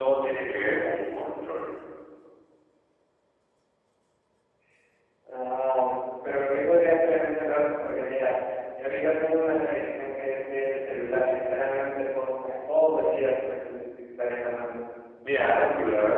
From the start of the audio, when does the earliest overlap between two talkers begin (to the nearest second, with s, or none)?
none